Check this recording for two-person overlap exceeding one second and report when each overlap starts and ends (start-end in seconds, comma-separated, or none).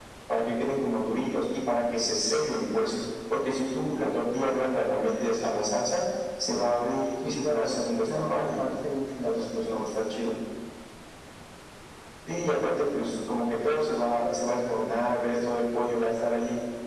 7.2-8.6